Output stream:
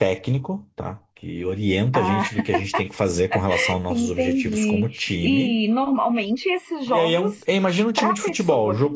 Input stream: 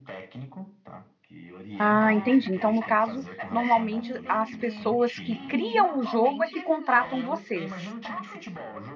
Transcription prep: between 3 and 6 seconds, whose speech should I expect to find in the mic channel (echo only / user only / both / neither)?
both